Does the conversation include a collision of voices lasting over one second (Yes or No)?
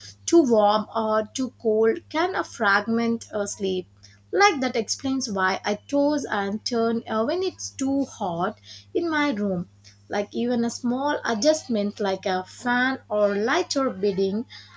No